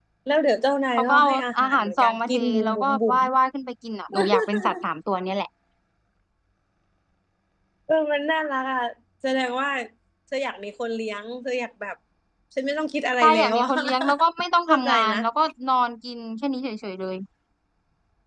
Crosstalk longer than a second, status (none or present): present